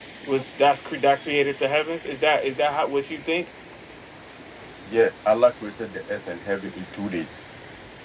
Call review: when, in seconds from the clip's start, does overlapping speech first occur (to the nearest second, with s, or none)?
none